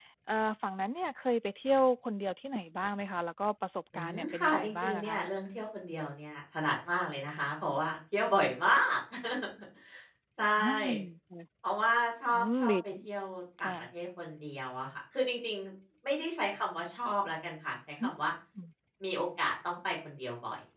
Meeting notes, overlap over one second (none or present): present